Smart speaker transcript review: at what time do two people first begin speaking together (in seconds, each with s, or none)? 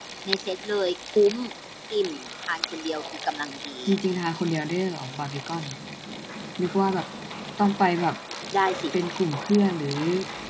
none